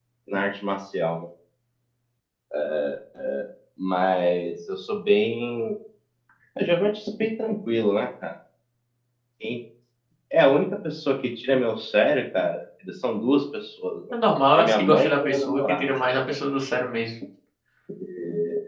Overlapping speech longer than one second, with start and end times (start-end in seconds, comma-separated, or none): 14.6-16.0